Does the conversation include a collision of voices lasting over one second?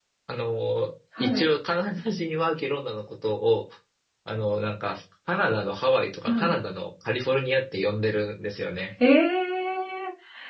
No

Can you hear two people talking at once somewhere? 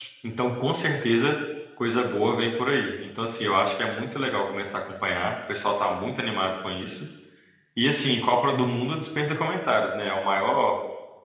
No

